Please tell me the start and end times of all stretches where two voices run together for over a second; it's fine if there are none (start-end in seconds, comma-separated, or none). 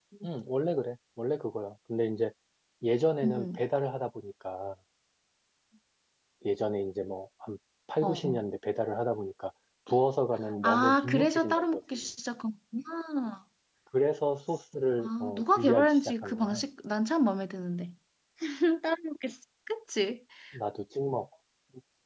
10.6-12.0, 15.0-16.6